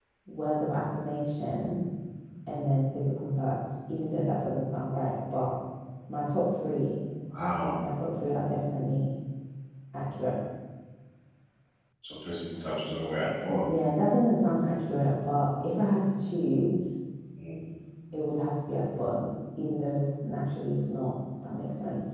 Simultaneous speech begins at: none

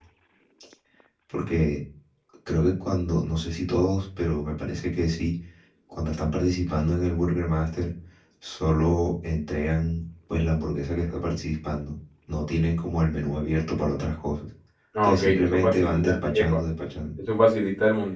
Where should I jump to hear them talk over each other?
15.0 s

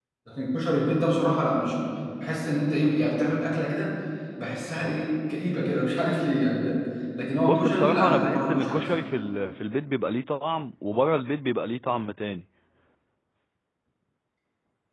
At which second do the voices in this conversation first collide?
7.5 s

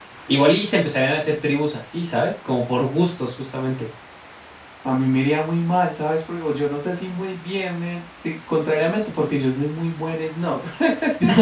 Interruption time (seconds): none

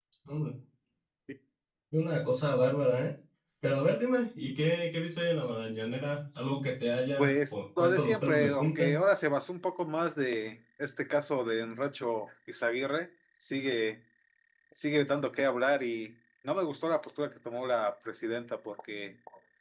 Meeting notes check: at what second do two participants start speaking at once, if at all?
7.2 s

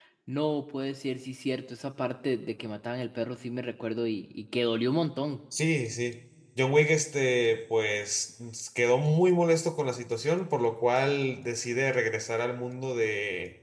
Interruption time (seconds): none

